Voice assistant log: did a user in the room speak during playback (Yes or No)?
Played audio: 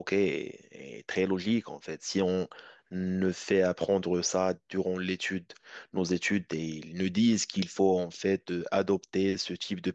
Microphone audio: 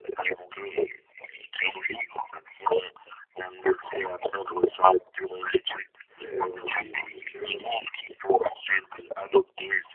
Yes